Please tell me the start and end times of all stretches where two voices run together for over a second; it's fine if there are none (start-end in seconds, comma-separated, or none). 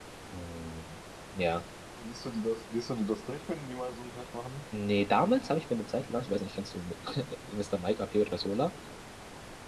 none